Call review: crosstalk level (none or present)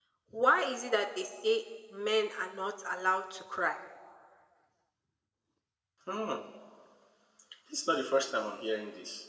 none